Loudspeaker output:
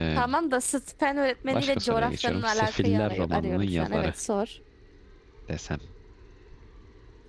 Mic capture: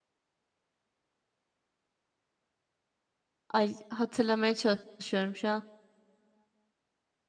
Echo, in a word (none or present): none